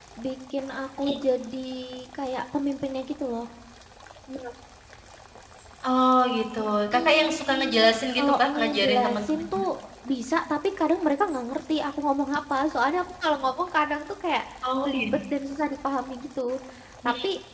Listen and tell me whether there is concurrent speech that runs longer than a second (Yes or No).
Yes